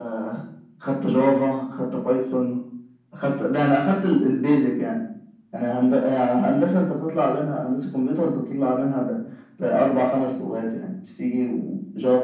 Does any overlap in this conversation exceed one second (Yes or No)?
No